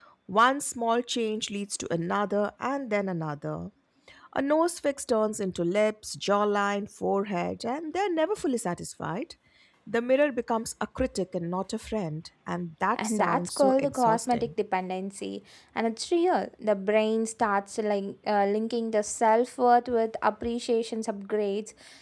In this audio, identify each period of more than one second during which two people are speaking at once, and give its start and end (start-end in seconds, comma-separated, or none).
13.0-14.5